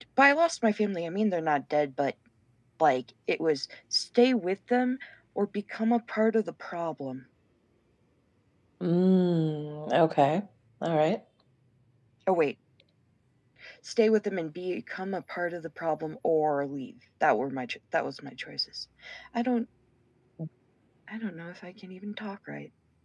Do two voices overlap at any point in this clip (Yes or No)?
No